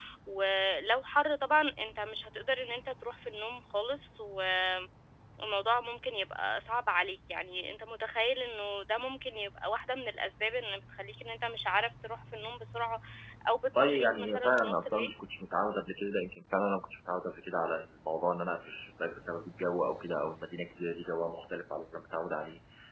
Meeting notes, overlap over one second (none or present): present